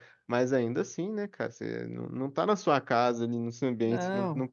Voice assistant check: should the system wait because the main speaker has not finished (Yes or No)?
Yes